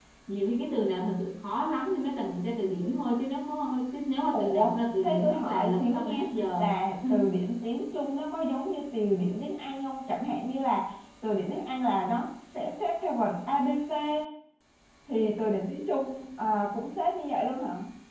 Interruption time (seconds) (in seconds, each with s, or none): 4.3 s